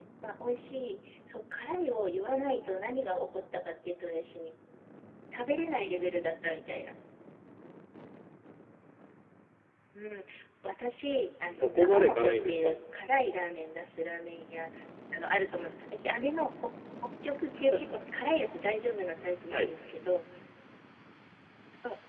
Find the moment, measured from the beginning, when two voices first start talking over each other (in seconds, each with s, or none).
11.5 s